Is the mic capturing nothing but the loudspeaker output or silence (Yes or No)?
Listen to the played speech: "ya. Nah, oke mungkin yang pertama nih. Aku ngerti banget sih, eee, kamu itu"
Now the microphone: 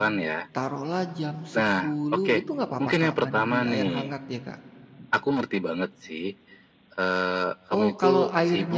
No